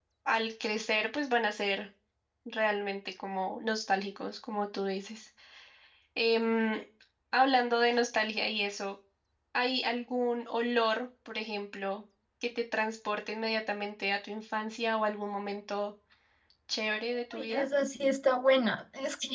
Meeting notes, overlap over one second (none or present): none